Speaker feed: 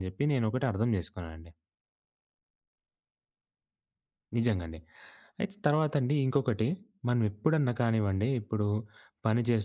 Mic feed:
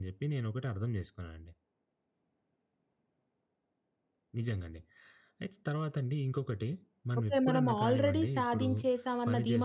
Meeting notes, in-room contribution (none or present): present